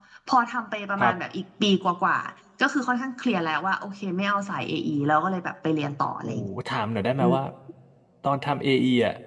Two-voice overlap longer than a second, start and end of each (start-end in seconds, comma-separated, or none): none